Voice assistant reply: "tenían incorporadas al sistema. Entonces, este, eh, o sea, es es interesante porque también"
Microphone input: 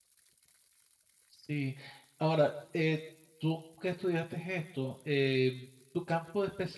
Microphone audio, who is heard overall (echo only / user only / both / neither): user only